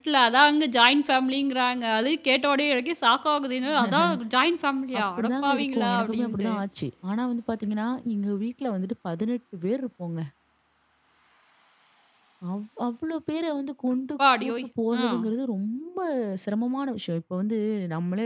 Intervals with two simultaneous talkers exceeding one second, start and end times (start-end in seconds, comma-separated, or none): 5.0-6.5